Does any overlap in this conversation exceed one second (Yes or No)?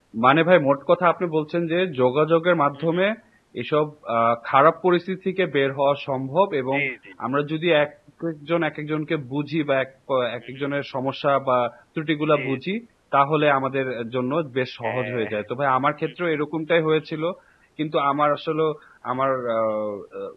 No